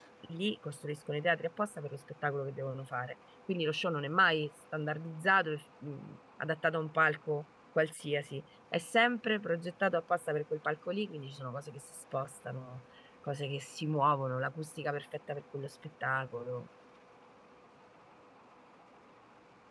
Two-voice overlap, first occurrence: none

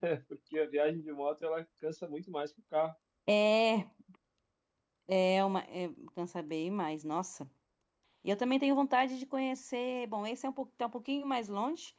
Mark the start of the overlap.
none

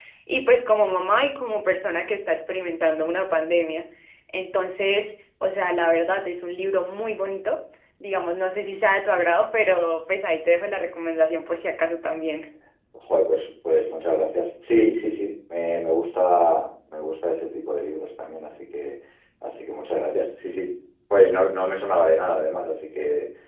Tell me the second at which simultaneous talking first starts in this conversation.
none

